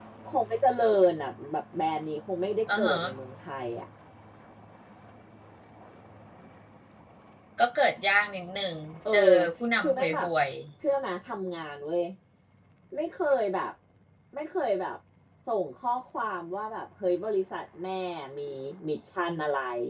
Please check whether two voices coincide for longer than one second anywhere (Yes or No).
No